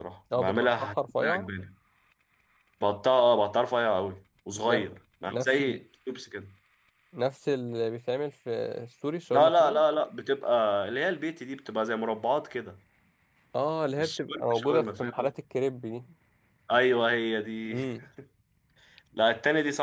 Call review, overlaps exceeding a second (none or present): present